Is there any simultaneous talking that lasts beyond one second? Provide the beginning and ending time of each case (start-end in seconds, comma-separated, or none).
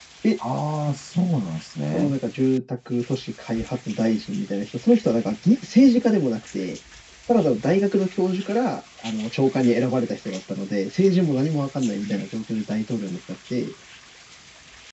none